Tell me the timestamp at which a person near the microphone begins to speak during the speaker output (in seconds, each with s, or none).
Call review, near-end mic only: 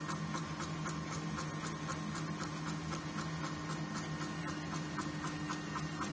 none